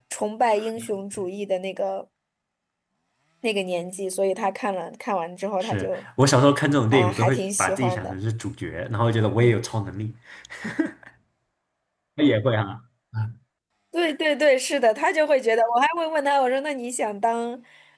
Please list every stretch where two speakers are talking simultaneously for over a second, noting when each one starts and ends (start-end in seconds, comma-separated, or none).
6.9-8.1